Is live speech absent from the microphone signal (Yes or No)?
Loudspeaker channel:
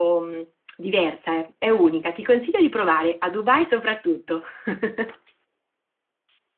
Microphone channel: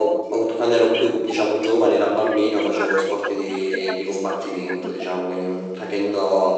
No